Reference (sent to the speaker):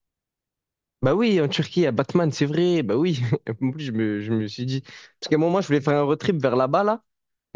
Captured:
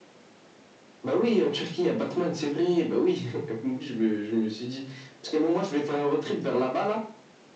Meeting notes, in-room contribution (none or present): none